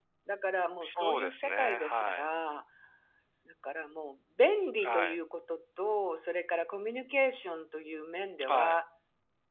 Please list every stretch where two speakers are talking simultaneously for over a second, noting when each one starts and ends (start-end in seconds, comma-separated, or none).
0.8-2.3